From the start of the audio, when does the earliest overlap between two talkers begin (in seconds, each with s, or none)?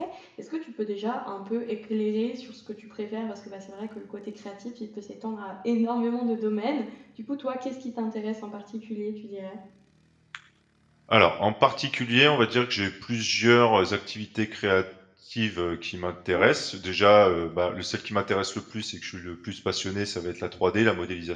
none